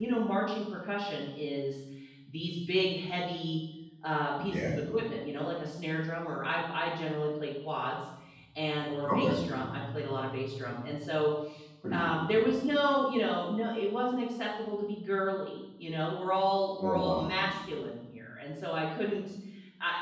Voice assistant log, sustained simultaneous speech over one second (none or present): none